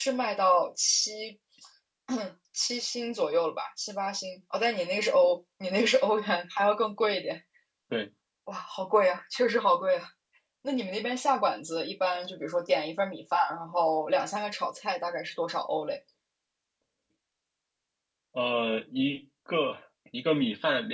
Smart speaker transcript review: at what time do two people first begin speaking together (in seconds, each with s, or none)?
none